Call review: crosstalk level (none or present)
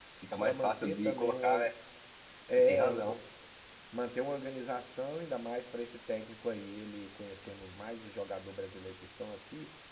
present